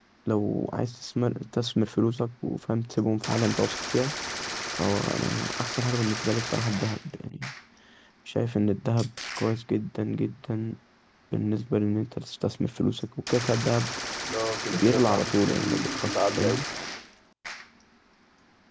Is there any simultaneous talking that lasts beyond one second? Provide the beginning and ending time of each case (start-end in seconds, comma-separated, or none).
14.7-16.6